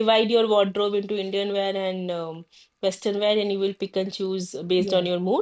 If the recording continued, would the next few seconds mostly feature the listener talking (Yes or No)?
Yes